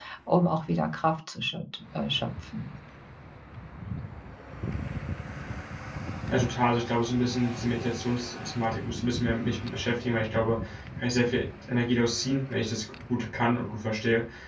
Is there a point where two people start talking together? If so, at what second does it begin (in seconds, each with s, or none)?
none